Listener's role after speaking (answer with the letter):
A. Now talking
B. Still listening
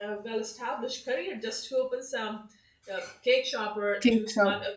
B